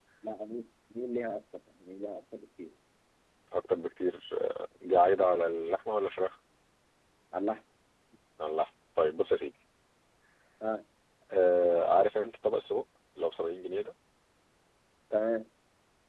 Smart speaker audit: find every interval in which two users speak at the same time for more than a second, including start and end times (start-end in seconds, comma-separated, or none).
none